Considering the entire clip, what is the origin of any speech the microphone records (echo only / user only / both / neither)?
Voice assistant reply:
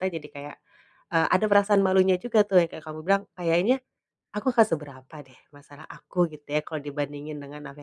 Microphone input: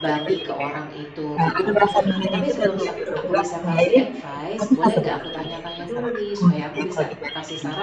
both